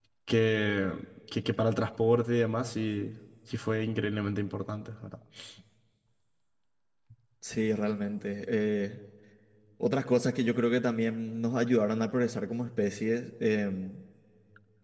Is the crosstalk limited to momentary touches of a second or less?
Yes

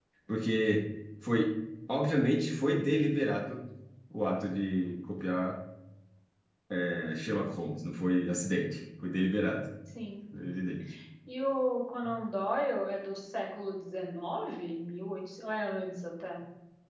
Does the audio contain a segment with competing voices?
No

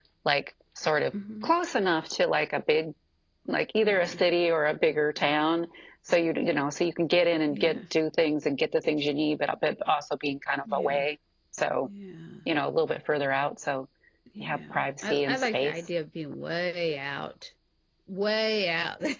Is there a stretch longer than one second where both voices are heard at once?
Yes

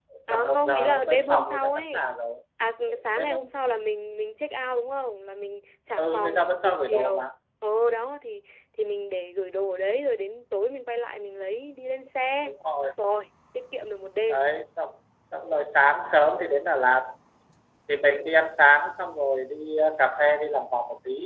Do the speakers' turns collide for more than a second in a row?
Yes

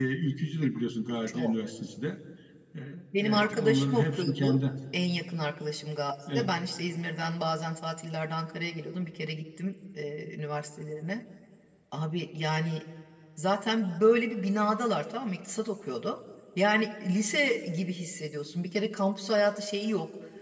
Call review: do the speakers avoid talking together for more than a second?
No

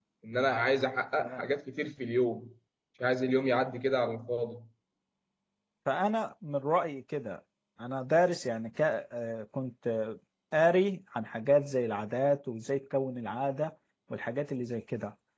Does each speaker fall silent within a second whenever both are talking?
Yes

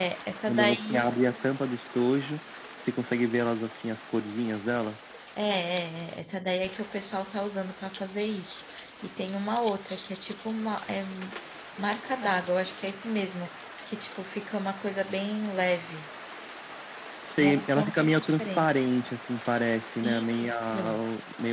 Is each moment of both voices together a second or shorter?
No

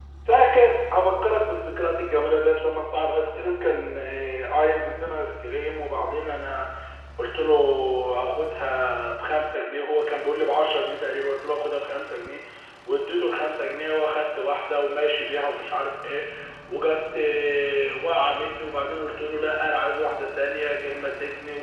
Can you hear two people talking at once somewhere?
No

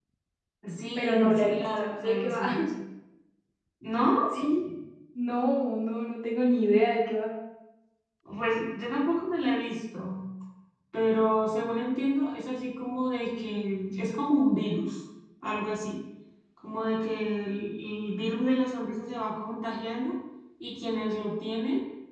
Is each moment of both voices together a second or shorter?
No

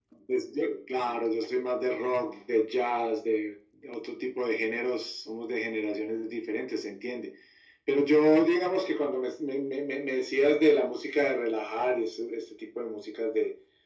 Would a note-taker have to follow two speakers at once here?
No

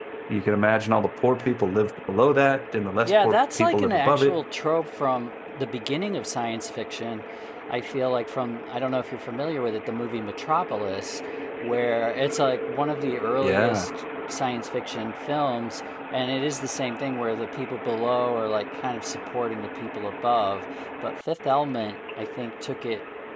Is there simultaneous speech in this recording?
Yes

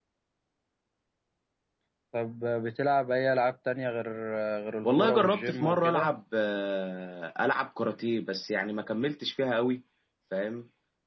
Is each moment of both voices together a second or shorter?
No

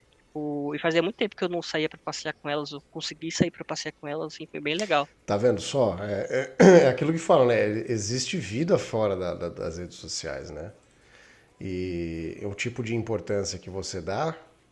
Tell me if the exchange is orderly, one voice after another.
Yes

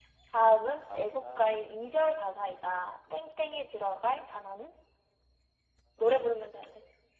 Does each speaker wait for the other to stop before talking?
No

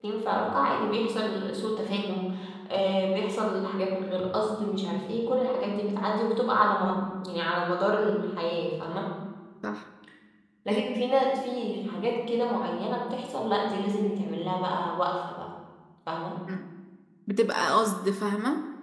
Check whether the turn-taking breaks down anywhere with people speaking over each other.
No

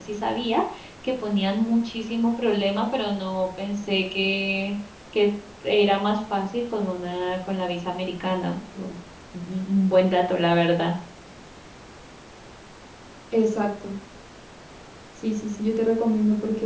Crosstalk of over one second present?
No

